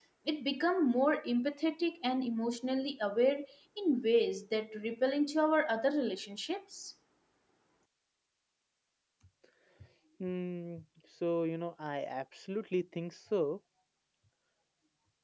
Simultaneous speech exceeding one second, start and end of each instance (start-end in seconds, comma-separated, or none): none